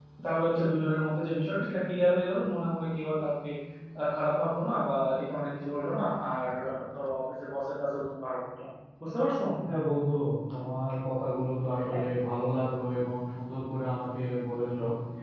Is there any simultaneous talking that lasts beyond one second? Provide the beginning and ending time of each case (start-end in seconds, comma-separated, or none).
none